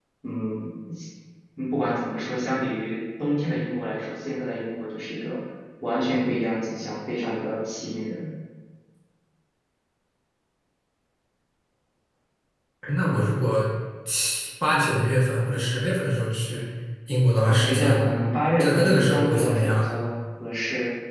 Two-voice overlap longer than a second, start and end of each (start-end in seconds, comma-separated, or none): 18.6-19.9